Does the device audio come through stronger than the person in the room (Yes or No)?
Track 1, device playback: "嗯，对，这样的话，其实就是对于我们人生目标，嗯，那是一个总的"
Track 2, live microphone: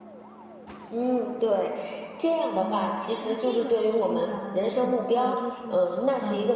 Yes